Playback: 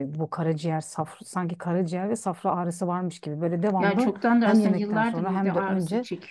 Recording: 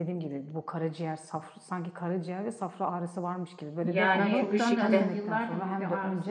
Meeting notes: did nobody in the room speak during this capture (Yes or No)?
No